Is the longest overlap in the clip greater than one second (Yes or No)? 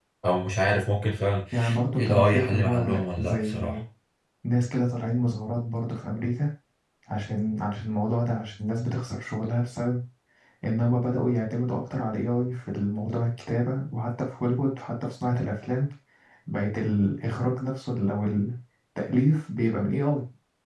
Yes